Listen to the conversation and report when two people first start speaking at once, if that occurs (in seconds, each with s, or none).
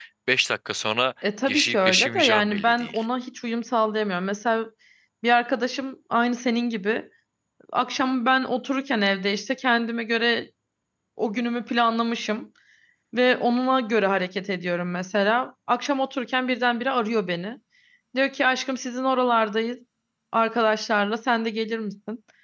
1.5 s